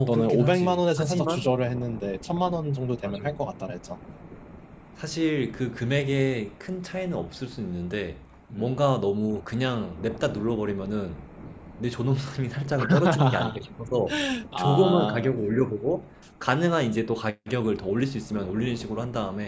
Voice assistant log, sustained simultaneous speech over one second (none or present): present